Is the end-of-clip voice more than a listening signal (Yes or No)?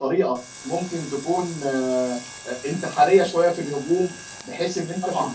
No